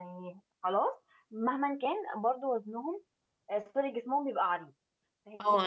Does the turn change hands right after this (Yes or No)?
Yes